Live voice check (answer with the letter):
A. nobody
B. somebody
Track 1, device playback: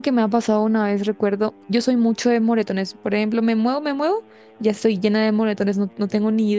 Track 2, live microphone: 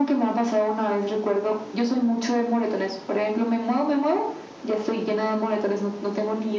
A